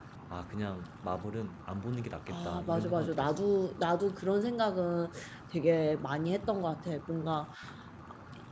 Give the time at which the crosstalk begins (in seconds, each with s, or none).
2.3 s